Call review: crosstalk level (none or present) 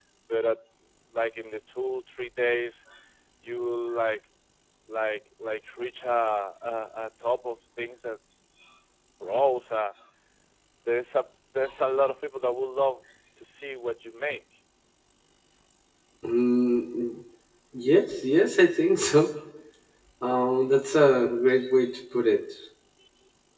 none